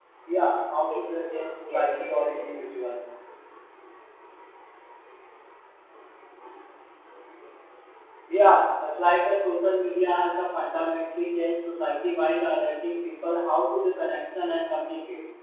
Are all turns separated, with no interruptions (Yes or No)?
No